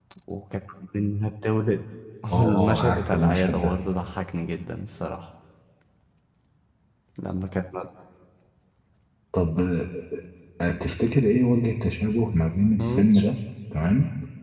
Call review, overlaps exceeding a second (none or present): present